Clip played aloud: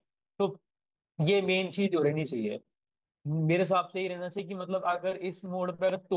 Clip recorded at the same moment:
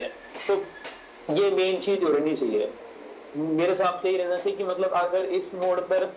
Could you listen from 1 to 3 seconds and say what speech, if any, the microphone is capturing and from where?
echo only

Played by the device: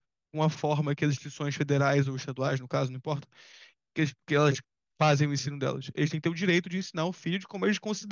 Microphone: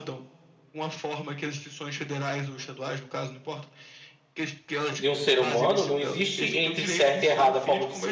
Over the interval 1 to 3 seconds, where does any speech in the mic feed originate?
echo only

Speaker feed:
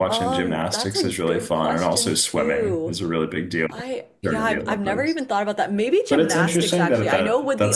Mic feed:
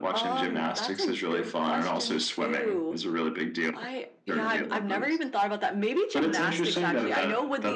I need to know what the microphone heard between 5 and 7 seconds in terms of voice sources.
echo only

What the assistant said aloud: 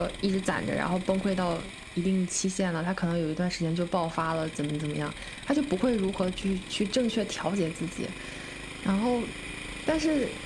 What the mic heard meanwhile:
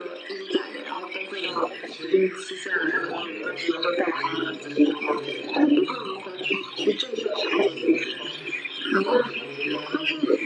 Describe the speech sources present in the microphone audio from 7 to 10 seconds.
both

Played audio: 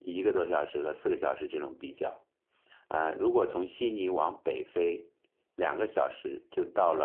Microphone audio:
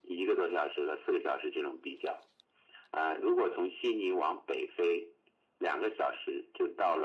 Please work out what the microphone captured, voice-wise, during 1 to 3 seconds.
echo only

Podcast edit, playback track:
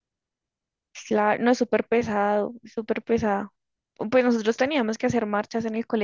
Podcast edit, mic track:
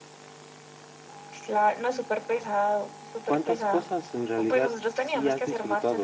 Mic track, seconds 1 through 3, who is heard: echo only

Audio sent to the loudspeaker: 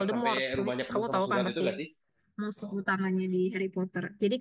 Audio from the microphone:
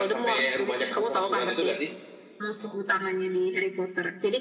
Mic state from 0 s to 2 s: echo only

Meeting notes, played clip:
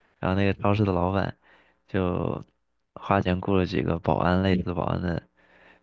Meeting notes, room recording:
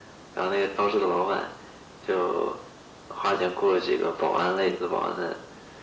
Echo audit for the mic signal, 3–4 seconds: echo only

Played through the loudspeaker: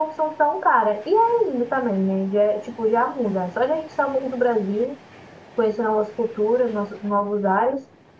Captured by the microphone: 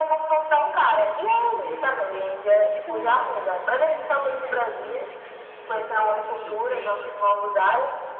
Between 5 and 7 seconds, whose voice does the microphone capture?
both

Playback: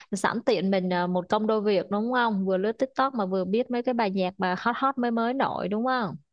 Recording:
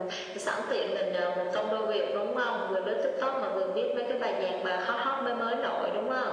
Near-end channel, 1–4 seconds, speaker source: echo only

